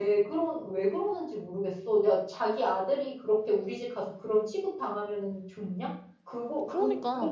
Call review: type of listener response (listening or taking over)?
listening